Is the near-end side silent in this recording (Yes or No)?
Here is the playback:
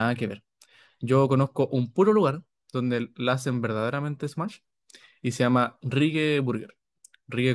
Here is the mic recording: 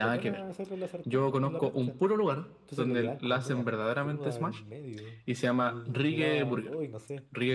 No